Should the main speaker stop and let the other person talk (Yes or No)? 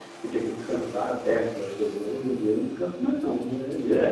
Yes